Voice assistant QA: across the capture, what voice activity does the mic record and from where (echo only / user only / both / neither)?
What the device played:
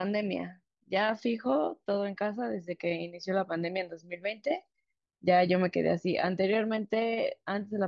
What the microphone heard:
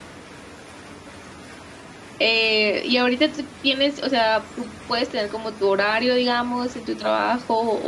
user only